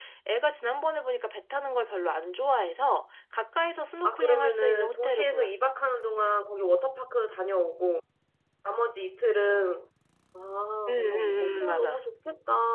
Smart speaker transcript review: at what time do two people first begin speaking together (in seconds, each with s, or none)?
4.0 s